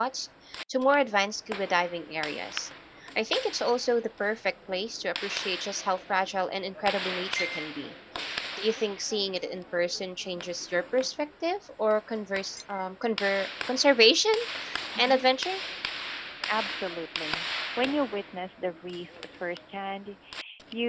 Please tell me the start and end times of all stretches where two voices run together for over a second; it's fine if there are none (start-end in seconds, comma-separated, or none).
none